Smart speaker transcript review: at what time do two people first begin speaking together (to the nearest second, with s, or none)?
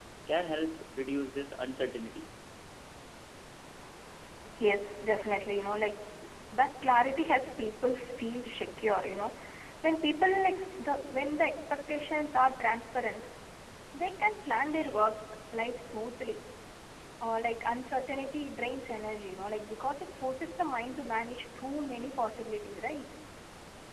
none